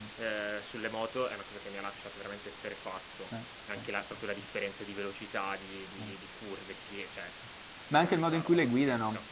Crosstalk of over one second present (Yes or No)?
Yes